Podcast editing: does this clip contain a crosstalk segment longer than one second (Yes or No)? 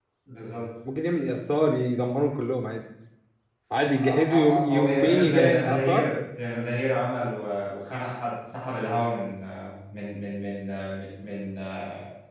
Yes